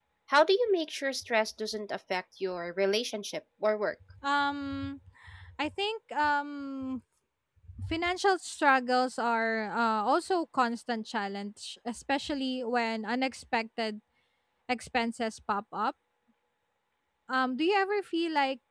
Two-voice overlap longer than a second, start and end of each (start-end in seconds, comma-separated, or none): none